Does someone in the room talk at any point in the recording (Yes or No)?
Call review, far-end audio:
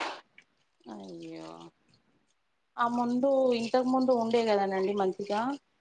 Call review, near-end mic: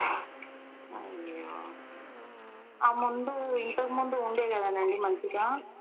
No